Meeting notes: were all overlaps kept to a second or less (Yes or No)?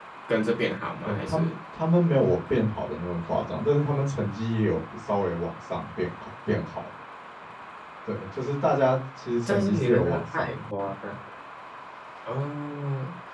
No